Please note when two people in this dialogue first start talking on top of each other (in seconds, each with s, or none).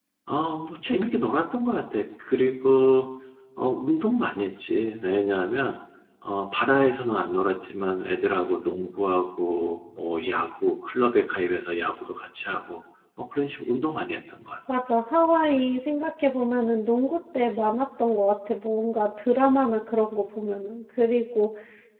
none